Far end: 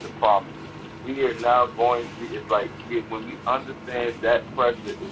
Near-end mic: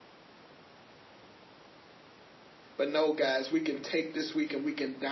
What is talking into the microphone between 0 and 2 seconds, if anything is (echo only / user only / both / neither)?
neither